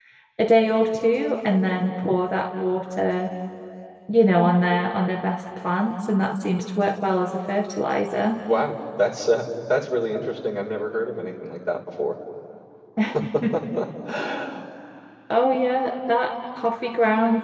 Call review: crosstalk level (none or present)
none